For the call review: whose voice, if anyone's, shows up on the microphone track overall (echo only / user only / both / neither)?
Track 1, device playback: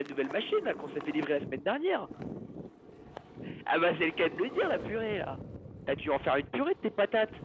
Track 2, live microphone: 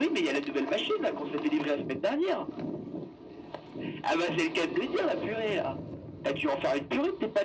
echo only